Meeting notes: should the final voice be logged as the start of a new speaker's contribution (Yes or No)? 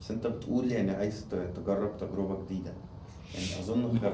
No